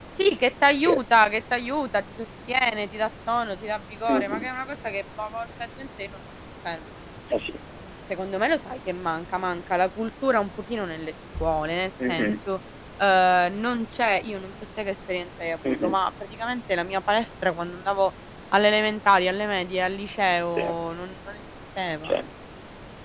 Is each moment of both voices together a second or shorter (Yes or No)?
Yes